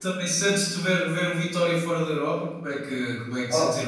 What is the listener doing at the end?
taking over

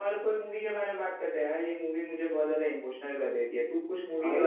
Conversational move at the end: taking over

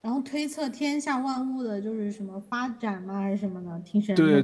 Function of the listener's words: taking over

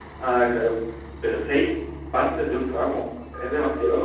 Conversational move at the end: taking over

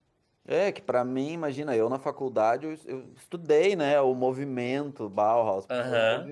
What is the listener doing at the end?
listening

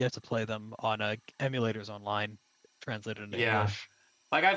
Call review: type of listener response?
taking over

